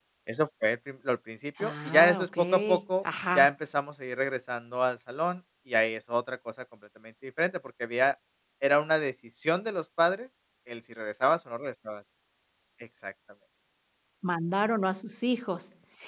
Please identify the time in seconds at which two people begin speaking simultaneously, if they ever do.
1.6 s

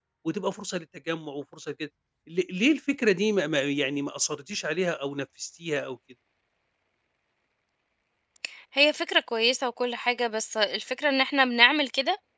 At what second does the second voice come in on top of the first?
none

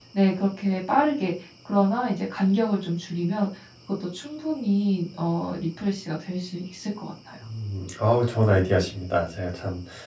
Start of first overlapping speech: none

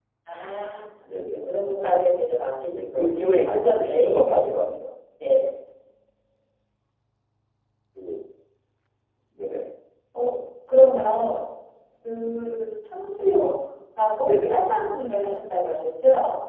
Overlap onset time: 2.7 s

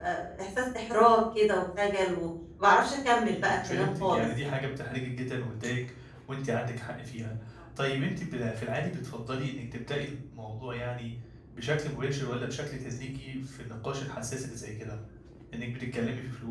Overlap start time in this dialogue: 3.3 s

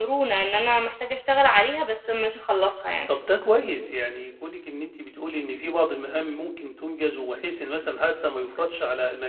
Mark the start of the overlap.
none

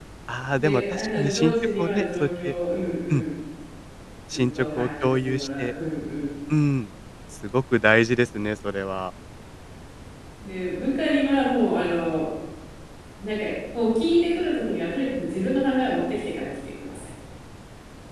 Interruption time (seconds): 0.5 s

